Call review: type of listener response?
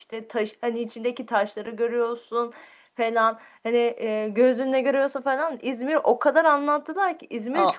taking over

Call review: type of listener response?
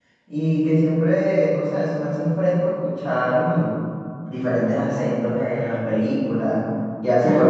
listening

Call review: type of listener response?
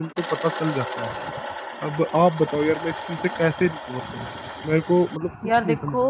listening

